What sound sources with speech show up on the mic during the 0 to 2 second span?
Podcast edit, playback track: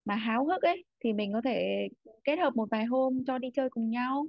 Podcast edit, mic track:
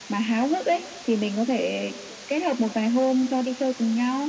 echo only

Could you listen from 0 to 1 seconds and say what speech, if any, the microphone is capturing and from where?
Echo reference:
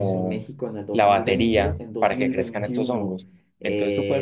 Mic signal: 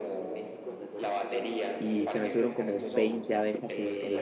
echo only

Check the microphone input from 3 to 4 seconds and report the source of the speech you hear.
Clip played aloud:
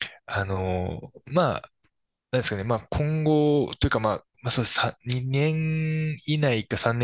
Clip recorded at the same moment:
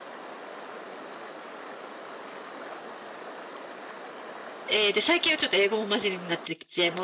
neither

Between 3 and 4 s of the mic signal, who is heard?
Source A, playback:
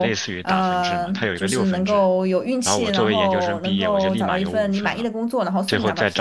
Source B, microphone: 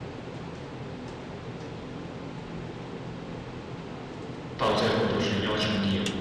neither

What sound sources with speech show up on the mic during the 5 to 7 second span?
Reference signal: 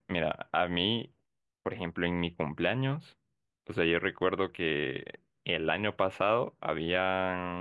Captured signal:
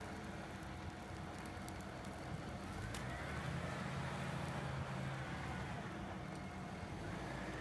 neither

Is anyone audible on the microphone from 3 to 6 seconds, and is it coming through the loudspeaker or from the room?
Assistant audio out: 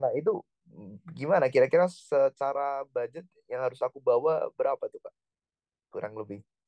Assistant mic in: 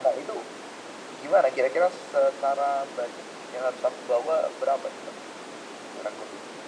echo only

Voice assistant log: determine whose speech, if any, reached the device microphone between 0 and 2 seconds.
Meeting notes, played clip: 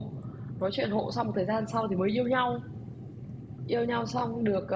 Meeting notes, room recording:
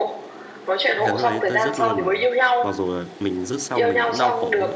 both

